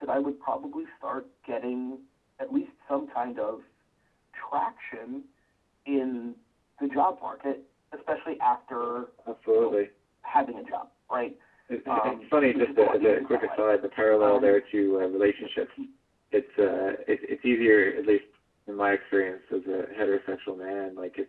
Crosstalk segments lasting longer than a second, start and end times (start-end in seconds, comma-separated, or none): 11.9-13.6